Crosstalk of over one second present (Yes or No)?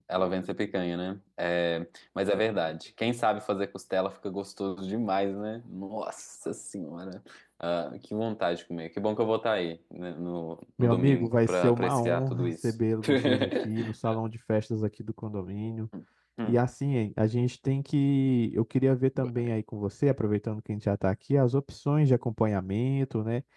Yes